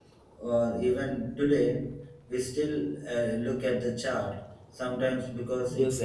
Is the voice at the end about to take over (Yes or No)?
Yes